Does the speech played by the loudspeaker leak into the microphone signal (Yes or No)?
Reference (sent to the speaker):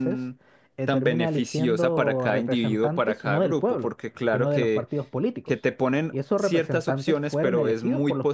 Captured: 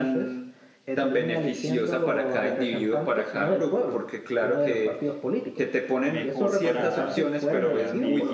Yes